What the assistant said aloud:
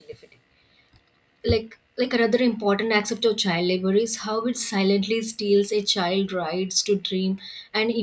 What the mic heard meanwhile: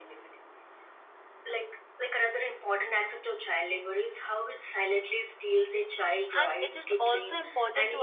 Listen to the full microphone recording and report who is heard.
both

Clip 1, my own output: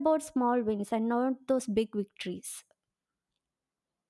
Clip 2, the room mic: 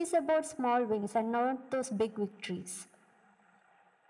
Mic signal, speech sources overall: echo only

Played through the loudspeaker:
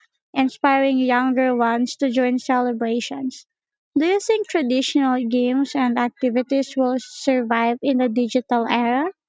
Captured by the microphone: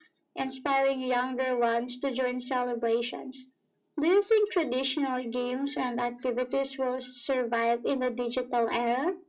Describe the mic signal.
echo only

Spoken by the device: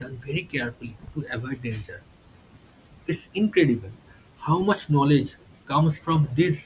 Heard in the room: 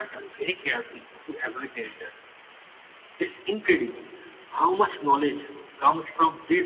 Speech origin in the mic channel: echo only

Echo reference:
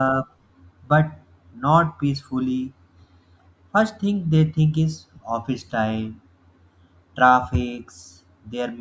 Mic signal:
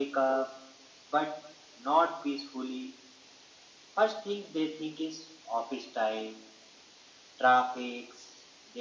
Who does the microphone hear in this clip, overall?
echo only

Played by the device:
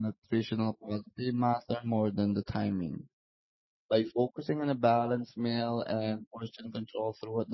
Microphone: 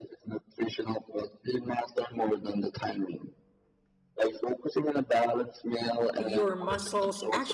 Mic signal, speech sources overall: both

